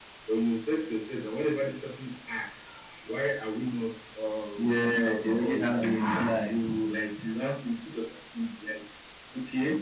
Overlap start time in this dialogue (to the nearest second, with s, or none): 5 s